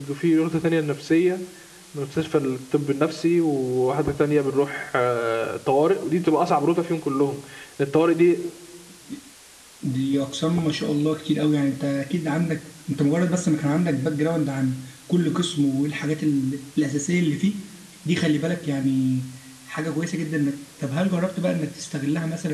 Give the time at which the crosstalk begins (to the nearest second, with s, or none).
none